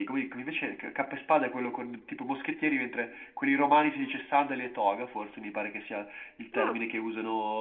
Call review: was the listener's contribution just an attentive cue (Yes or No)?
Yes